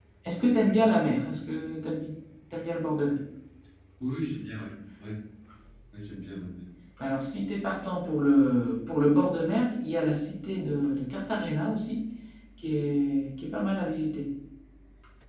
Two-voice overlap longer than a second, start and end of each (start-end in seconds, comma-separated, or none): none